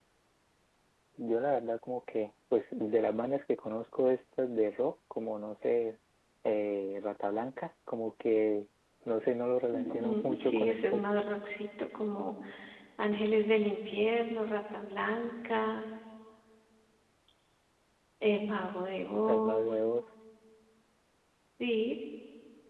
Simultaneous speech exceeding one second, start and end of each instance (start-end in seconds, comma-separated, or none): 9.7-11.0